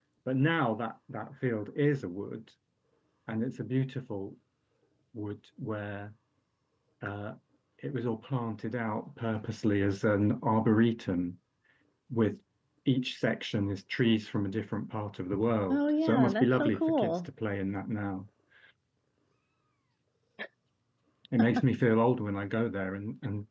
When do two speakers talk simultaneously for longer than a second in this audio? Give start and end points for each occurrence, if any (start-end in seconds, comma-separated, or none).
15.7-17.1